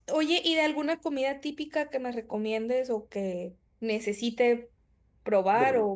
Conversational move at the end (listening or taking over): listening